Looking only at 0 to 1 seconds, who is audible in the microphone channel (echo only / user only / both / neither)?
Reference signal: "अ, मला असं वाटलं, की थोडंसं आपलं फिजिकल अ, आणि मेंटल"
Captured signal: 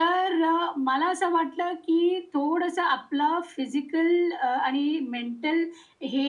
echo only